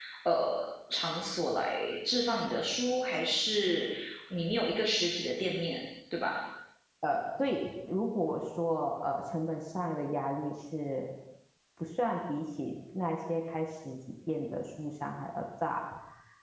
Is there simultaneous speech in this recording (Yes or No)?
No